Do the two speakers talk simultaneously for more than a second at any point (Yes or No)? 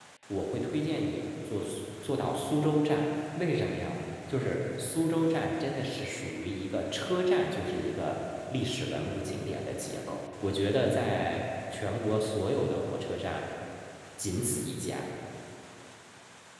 No